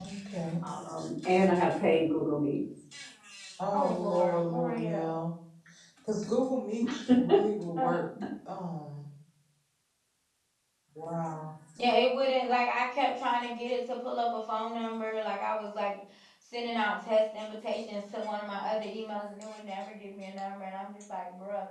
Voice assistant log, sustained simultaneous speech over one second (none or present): present